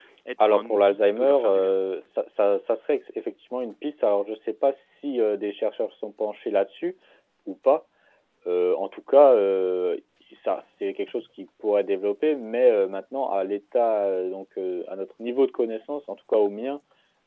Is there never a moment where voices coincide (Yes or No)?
No